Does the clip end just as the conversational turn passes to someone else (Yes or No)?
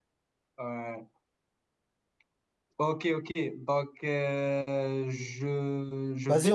Yes